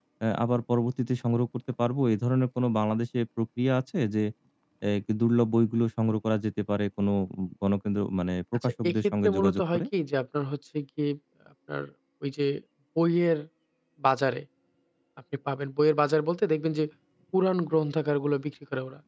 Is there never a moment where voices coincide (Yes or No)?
No